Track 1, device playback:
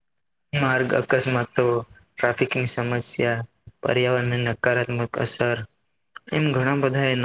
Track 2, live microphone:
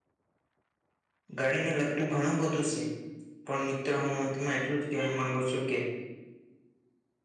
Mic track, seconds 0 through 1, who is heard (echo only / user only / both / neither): neither